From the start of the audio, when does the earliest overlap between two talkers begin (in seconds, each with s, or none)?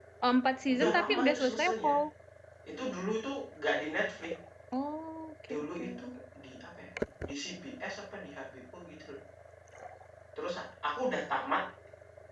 0.7 s